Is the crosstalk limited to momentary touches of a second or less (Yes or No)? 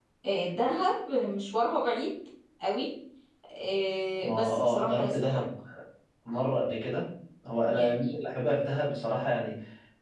No